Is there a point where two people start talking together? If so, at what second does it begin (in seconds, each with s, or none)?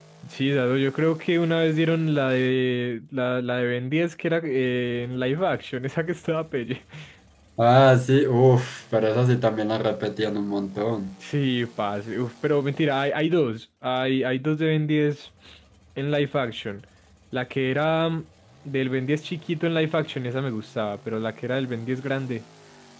none